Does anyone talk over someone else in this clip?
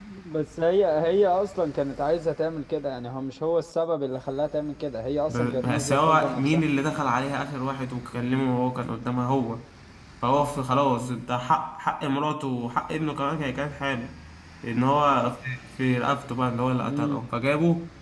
Yes, from 5.3 s

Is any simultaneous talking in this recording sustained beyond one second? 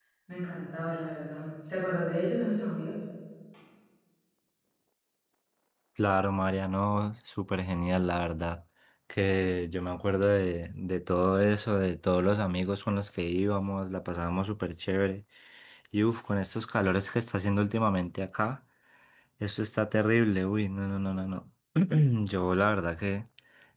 No

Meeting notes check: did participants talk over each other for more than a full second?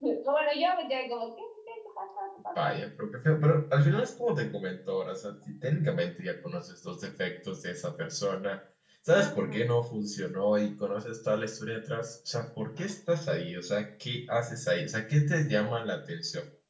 No

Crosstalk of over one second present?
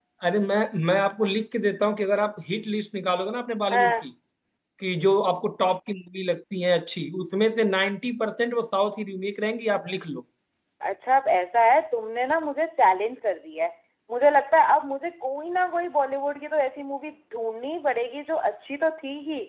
No

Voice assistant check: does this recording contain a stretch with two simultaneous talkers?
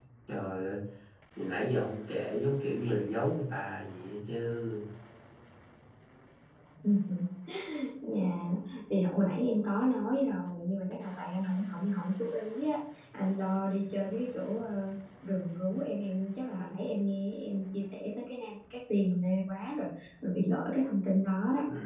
No

